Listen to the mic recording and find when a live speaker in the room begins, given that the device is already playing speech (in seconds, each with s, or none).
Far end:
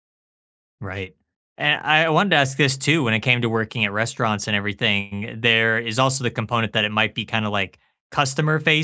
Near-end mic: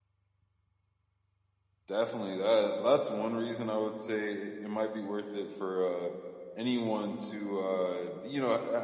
1.9 s